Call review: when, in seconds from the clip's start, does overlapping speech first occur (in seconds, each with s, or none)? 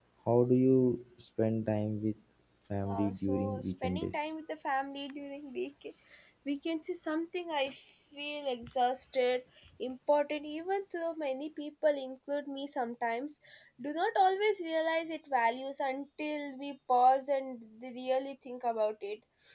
2.8 s